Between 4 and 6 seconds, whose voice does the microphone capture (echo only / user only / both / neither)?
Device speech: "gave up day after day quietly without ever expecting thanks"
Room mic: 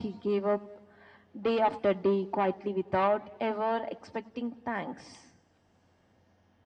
echo only